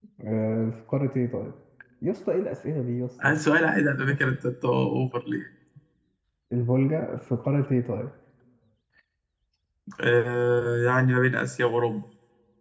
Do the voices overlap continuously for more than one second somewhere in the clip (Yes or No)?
No